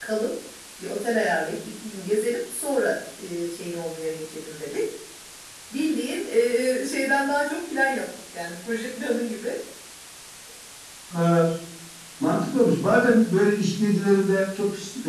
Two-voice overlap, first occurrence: none

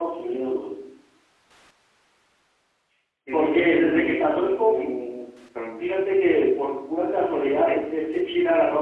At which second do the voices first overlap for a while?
3.3 s

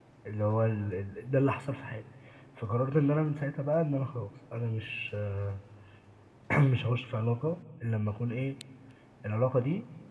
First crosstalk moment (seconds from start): none

